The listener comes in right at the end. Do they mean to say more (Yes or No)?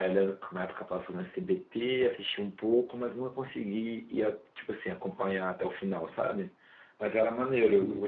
No